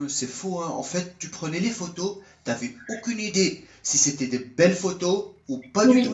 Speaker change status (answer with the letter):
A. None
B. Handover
A